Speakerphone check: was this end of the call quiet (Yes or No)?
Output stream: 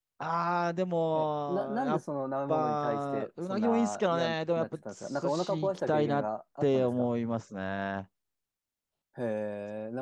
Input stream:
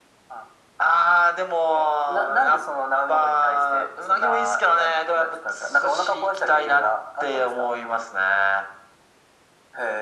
Yes